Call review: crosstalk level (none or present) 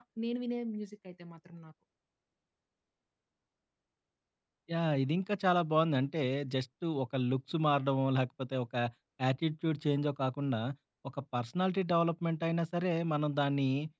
none